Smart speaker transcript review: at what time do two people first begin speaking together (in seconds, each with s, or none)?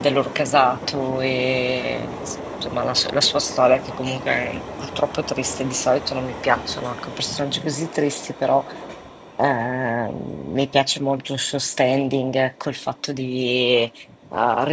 none